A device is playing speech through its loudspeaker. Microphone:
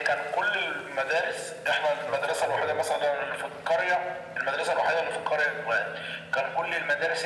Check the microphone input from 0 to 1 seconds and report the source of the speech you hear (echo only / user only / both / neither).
echo only